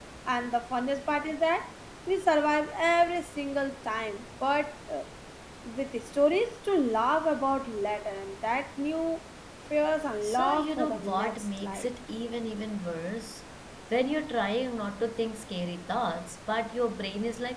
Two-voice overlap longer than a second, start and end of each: 10.2-11.9

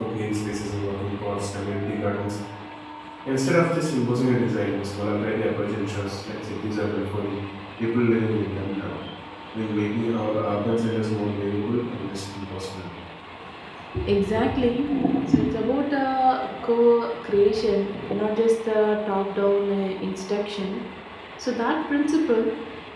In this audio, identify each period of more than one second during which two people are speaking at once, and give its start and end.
none

